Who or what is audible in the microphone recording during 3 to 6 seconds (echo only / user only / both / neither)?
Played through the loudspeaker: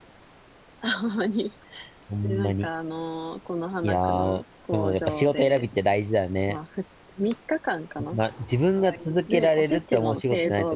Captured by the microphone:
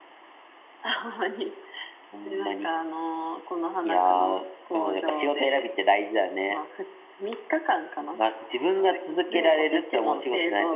echo only